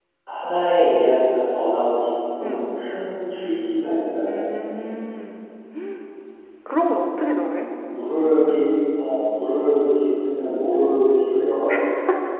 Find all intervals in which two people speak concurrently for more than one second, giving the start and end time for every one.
none

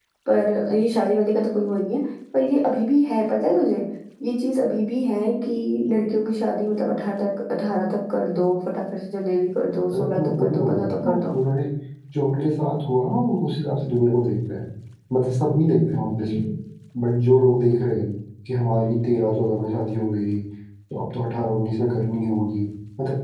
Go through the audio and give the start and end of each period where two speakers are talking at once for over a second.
9.9-11.3

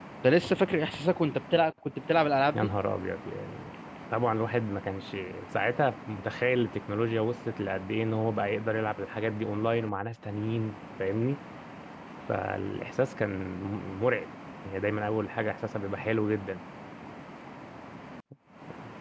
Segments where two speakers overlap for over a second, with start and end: none

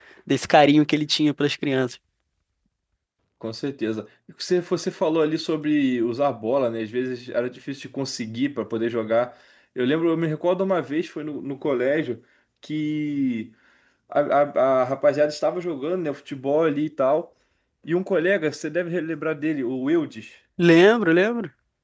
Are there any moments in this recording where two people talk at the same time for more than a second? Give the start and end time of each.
none

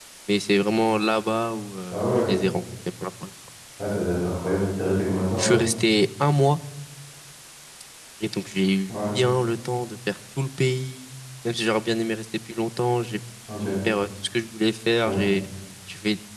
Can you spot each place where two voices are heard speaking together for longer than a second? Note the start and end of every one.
none

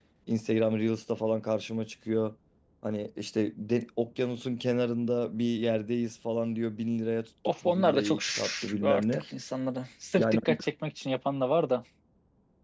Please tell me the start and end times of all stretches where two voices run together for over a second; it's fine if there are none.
7.6-9.2

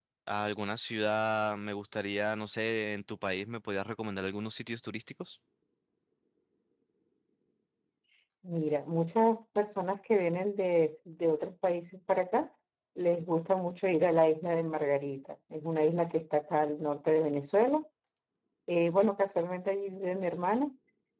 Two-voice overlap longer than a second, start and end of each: none

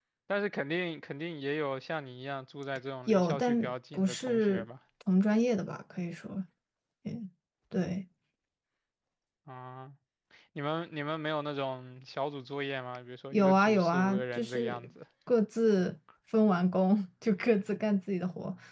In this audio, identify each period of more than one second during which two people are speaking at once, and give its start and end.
3.1-4.6, 13.3-14.9

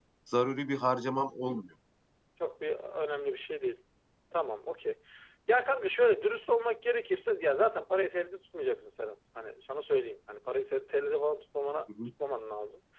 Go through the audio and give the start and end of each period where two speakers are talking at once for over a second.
none

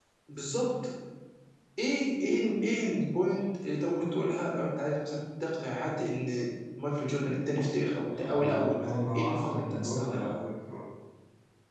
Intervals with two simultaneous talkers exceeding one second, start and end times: 8.2-10.3

